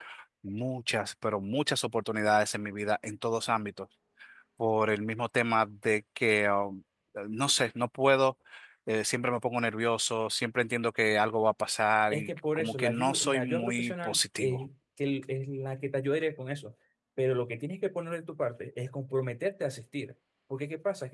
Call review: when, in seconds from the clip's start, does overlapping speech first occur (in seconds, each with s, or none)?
12.1 s